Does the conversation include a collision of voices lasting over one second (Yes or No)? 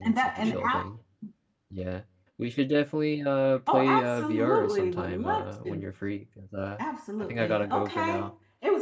Yes